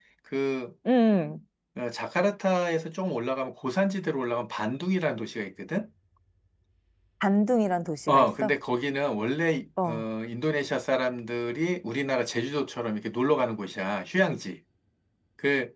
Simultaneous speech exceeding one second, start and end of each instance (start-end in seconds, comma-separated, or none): none